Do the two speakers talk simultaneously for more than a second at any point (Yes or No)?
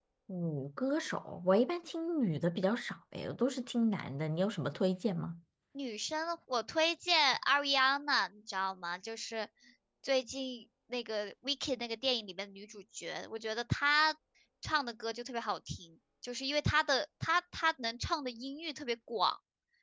No